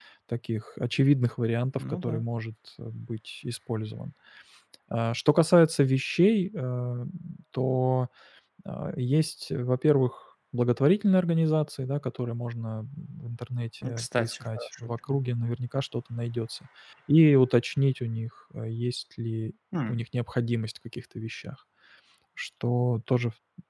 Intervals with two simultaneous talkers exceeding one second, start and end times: 13.9-15.2

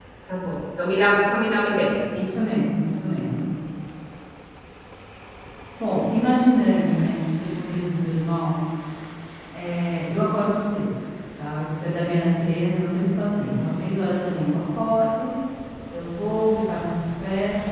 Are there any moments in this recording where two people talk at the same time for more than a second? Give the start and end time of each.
none

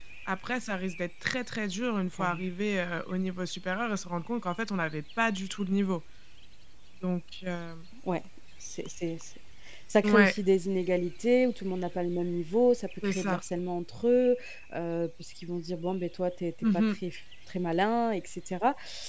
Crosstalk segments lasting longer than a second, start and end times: none

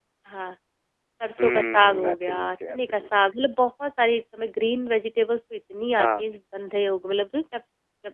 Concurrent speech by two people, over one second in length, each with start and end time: 1.4-3.1

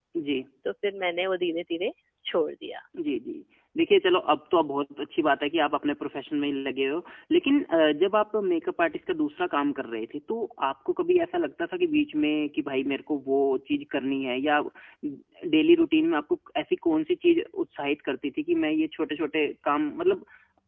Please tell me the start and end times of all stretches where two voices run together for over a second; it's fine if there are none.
none

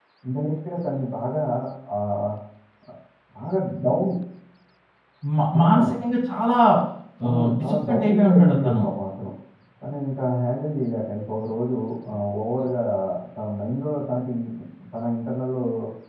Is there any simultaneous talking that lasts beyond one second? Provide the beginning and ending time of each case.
7.2-8.8

